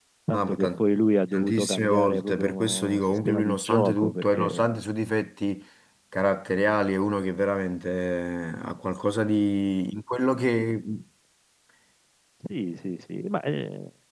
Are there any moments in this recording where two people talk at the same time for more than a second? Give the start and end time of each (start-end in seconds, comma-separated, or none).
1.3-4.7